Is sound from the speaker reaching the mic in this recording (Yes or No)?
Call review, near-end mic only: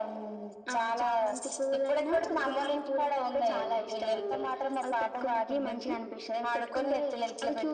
Yes